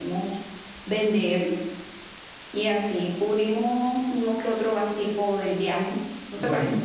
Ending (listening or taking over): taking over